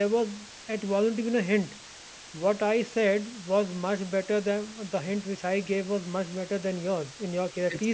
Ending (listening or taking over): listening